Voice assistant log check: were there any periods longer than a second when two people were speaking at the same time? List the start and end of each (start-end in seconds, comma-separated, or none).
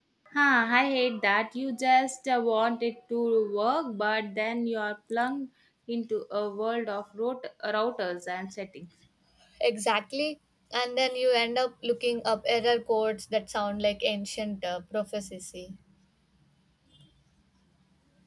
none